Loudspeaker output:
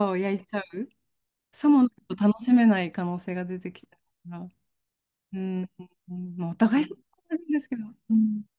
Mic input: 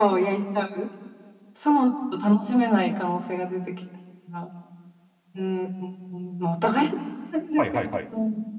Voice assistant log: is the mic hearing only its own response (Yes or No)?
No